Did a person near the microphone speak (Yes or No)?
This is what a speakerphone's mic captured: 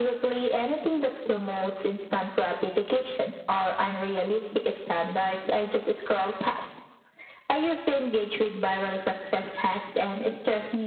No